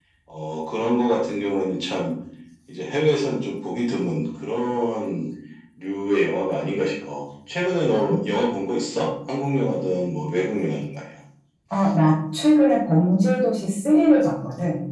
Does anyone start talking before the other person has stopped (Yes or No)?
No